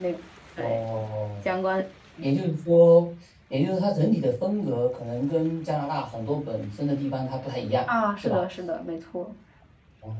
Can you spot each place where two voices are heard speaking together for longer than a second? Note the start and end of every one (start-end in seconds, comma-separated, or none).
none